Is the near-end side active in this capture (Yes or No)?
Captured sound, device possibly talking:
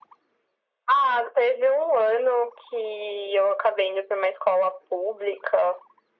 No